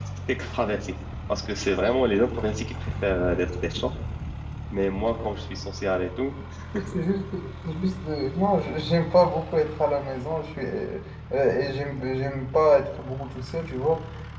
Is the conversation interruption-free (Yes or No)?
Yes